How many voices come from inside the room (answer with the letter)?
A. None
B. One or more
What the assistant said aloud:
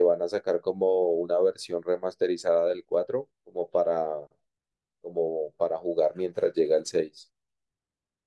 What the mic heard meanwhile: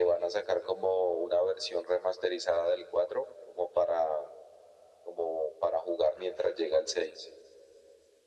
A